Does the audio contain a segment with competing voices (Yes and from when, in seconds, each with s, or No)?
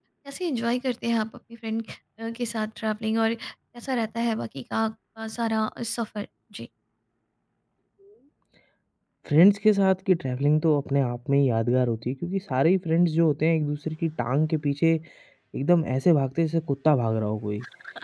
No